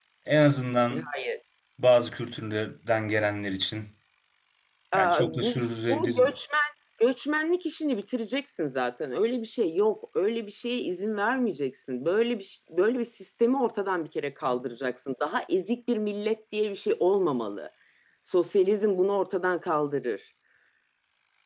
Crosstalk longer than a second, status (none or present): present